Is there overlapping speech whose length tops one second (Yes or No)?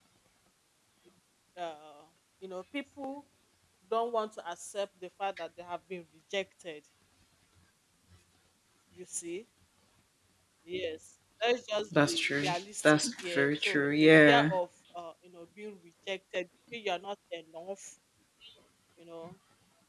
Yes